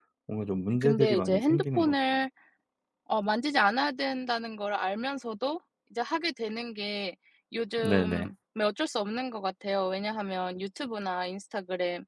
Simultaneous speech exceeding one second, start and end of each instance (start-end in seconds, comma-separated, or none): 0.7-1.9